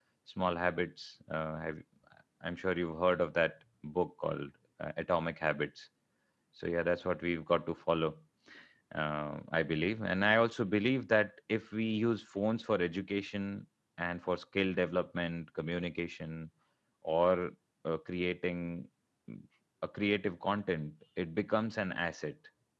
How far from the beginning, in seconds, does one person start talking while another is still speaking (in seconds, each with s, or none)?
none